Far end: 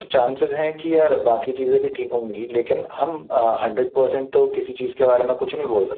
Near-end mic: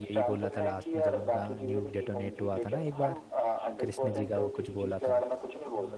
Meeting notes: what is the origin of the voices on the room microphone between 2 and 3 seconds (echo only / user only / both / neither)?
both